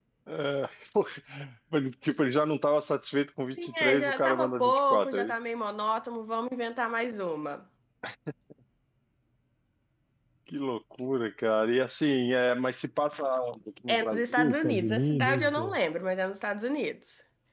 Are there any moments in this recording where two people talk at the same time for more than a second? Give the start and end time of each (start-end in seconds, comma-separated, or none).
3.6-5.3, 13.9-15.8